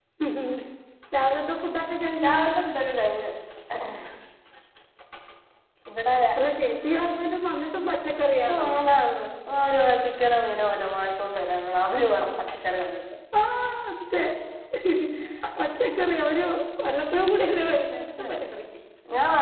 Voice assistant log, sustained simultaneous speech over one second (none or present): none